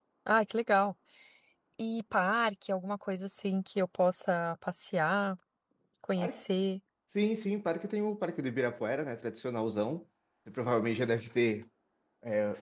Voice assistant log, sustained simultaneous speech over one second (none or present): none